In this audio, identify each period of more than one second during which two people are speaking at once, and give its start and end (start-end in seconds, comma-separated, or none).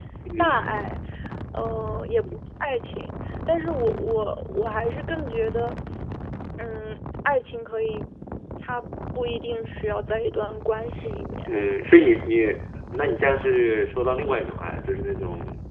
none